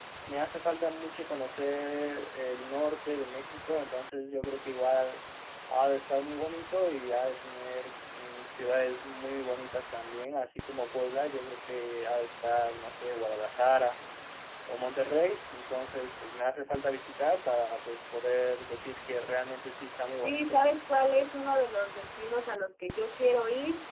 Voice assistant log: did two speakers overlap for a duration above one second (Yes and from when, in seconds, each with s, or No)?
No